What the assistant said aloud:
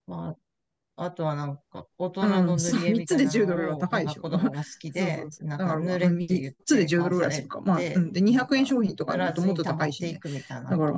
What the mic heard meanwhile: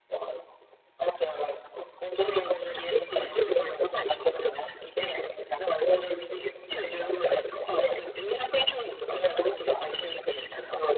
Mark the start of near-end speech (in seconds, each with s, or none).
none